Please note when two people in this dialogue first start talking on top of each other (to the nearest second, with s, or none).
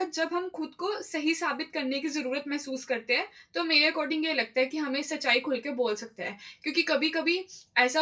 none